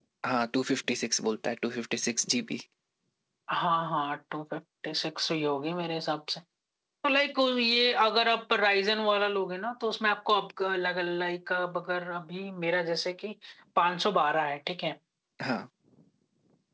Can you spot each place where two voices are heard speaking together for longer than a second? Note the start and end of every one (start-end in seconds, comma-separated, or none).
none